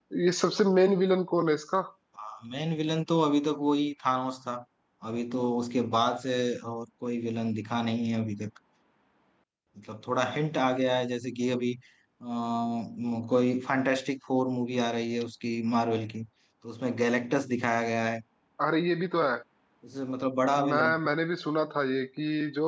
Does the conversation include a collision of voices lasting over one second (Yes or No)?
No